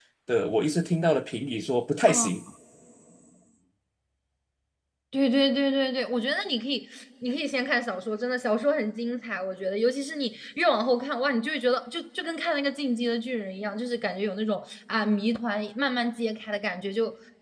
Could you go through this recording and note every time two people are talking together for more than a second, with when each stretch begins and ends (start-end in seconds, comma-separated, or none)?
none